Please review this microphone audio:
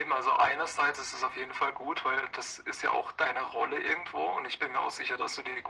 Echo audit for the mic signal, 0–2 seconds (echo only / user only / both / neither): echo only